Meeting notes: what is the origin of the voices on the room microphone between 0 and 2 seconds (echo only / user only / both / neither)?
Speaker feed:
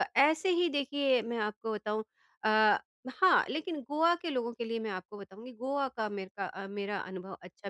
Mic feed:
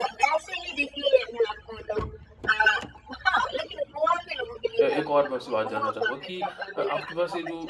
echo only